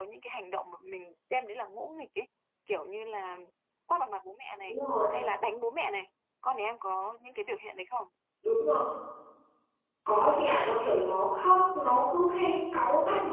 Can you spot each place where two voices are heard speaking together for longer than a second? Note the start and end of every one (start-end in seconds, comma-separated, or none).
none